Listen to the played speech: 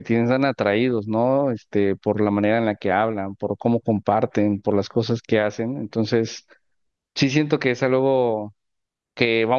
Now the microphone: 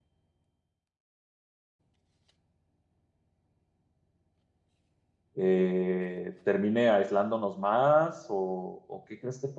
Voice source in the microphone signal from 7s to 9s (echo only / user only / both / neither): user only